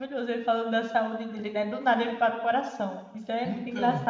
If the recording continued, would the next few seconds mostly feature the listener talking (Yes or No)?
Yes